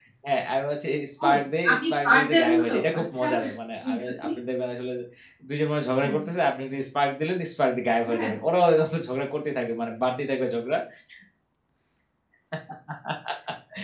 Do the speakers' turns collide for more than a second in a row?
Yes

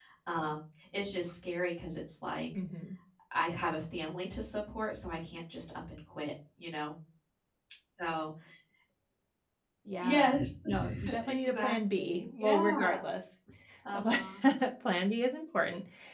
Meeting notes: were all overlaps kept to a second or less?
No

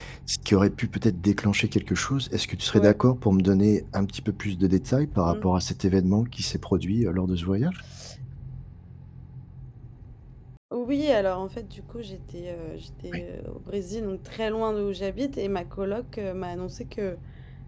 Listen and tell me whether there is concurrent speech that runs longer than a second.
No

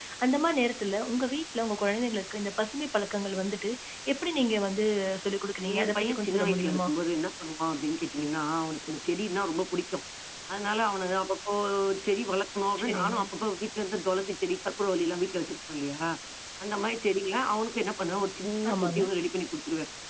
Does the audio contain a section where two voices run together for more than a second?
Yes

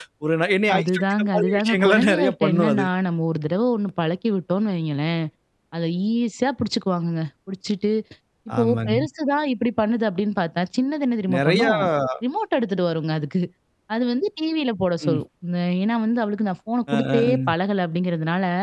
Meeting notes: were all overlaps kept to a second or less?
No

